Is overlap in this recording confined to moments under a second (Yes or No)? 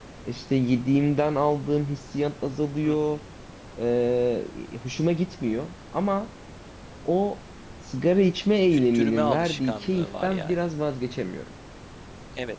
No